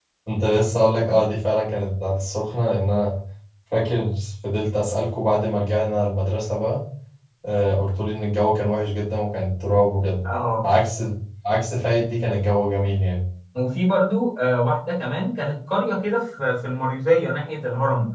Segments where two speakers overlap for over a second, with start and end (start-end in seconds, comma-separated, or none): none